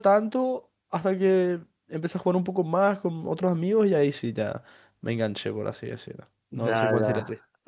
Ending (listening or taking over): taking over